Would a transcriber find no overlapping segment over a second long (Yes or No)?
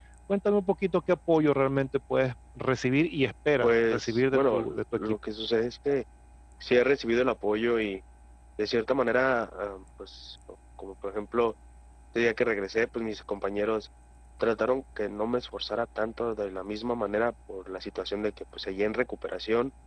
No